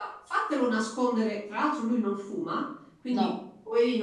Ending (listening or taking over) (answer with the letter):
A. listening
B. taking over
A